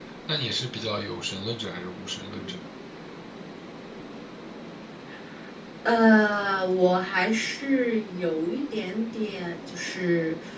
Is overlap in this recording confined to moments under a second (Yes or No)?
Yes